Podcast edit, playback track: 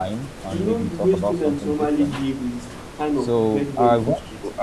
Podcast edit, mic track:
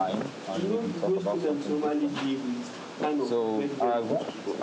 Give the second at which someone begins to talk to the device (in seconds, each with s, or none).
none